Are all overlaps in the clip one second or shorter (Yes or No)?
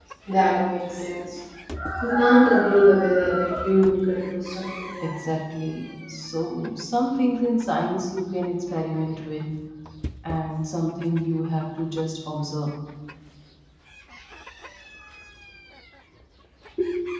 Yes